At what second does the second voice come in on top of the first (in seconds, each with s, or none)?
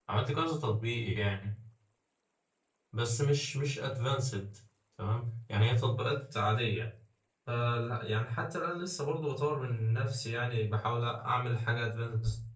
none